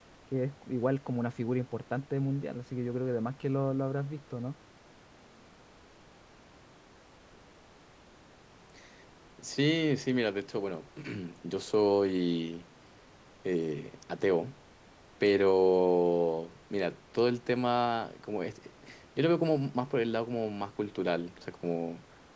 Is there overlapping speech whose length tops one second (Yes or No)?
No